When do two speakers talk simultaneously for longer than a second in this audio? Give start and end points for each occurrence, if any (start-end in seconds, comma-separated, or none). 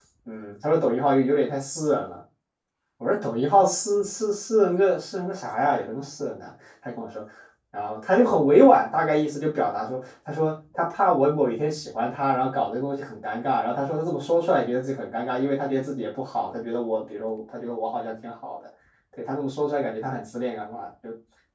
none